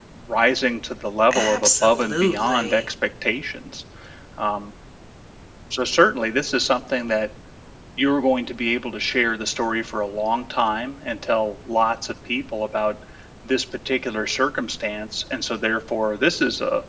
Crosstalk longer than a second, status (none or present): present